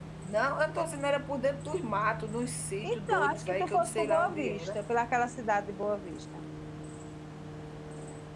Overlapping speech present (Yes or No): Yes